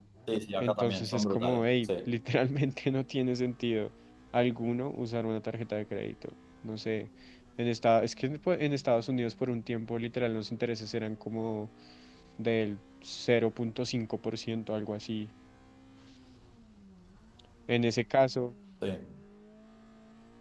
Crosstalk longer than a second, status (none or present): present